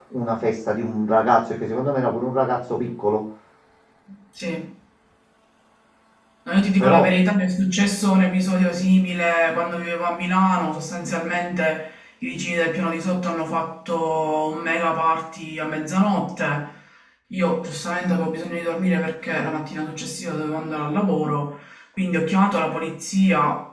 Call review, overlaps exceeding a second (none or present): none